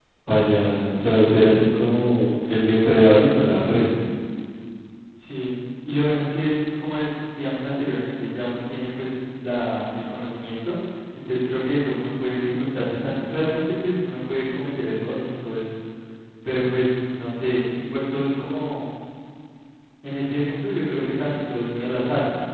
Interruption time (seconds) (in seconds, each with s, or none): none